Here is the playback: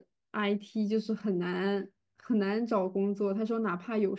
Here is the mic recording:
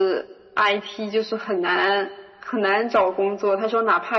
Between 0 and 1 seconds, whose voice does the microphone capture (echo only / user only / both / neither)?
echo only